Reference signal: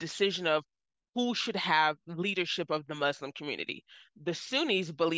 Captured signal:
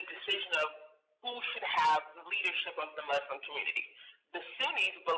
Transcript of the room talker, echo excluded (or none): none